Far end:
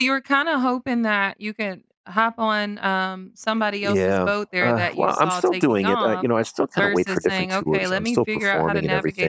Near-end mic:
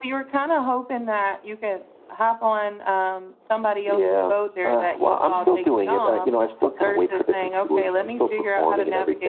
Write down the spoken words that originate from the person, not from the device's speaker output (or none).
Mhm.